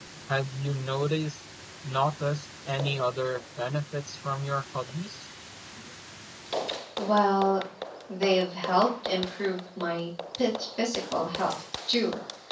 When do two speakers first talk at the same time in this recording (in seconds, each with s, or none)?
none